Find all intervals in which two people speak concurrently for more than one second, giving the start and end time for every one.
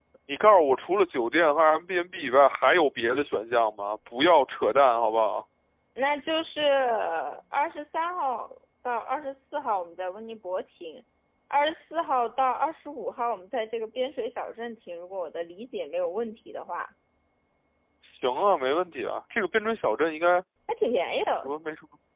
none

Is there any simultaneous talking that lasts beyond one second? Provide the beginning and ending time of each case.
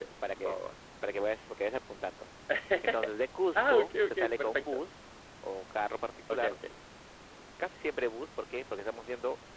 3.6-4.8

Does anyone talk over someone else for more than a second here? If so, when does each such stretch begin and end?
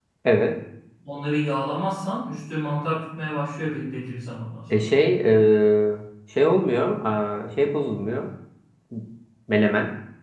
none

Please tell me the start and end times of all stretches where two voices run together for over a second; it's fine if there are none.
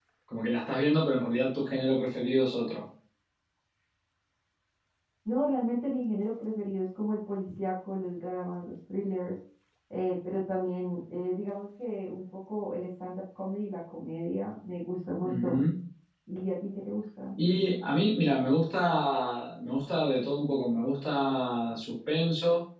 none

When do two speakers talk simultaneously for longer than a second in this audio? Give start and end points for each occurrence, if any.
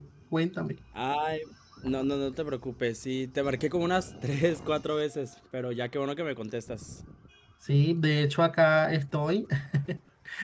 none

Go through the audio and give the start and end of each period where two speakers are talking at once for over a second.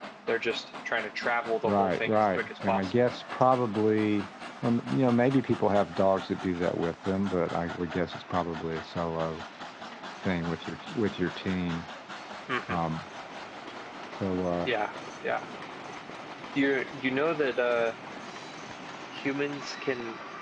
1.6-2.9

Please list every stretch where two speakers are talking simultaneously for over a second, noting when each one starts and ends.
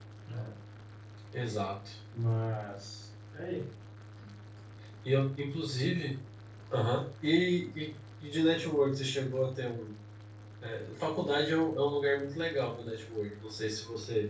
none

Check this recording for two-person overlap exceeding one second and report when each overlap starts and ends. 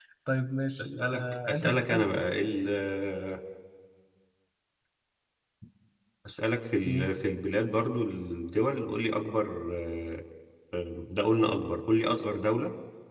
0.8-2.1

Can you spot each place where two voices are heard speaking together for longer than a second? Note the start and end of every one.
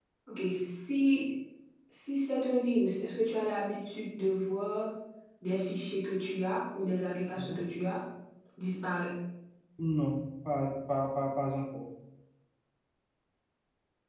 none

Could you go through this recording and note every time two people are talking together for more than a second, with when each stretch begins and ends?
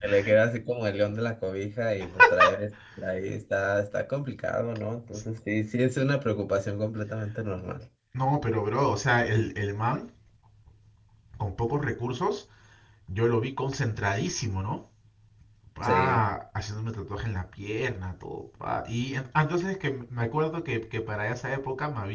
none

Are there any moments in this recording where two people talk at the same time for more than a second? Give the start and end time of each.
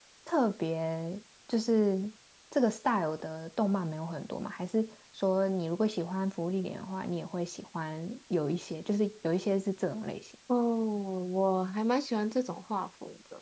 none

